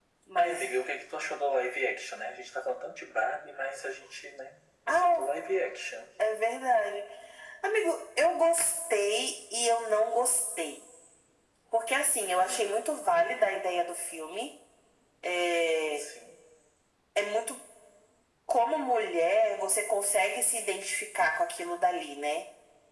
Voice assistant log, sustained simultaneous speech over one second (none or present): none